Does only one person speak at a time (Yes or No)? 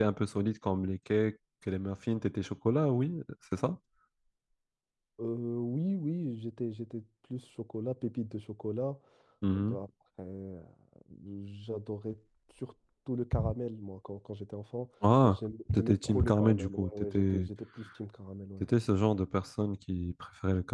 No